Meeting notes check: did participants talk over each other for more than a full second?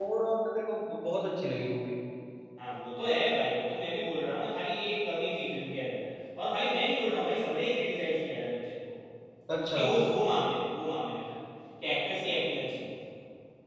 No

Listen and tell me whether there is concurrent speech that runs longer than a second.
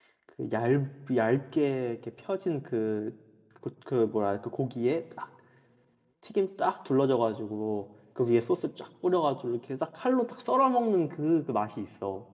No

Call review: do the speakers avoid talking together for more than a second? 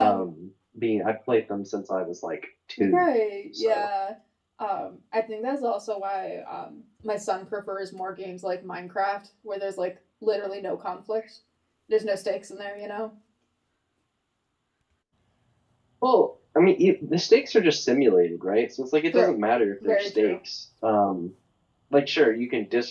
Yes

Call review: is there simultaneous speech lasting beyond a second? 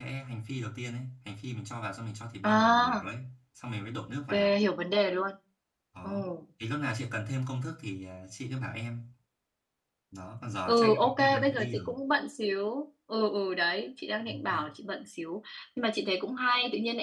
Yes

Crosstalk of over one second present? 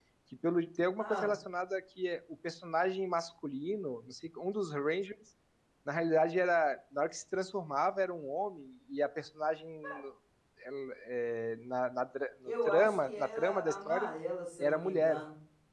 Yes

